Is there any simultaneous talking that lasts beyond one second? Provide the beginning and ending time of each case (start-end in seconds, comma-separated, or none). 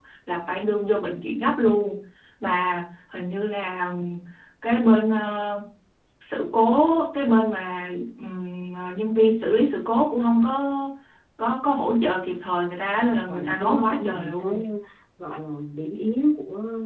12.9-14.6